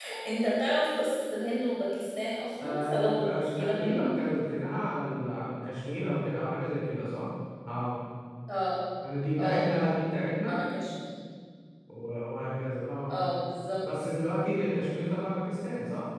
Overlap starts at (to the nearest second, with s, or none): 3 s